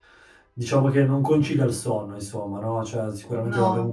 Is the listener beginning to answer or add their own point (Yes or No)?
No